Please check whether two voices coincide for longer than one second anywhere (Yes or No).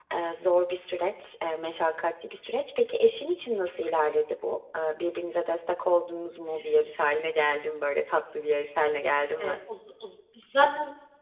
No